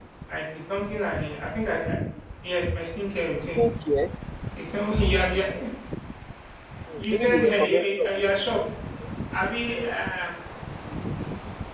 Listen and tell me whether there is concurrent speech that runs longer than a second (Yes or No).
Yes